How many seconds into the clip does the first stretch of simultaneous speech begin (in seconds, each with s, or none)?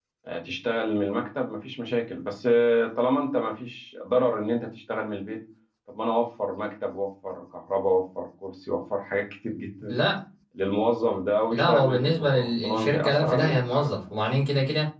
11.5 s